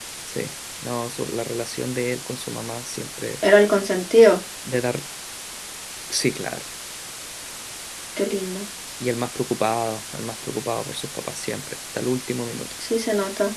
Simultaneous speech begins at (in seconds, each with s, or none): none